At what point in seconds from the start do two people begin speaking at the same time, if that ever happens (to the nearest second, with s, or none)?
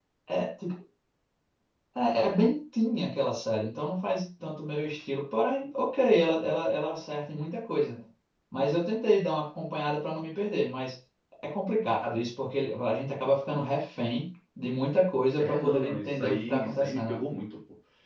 15 s